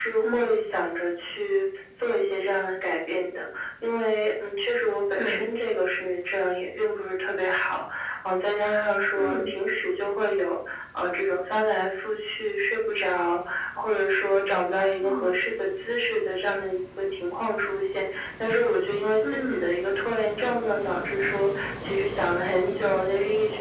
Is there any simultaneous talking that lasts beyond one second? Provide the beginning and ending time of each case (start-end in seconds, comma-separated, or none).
none